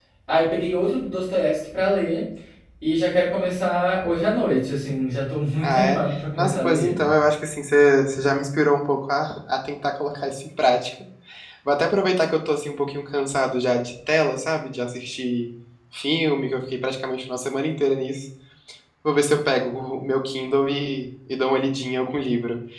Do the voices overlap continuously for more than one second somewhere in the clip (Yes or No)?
Yes